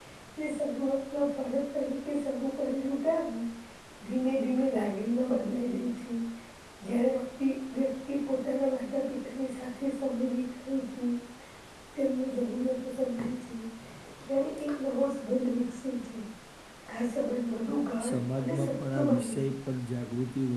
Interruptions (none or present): present